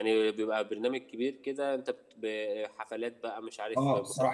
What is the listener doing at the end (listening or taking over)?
taking over